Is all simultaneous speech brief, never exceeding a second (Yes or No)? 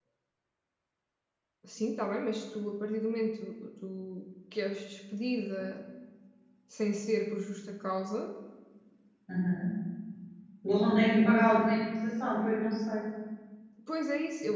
Yes